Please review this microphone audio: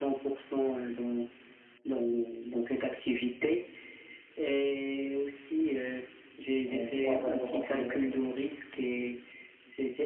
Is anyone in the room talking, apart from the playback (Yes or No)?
Yes